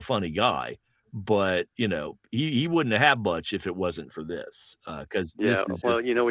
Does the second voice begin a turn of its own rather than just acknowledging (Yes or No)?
Yes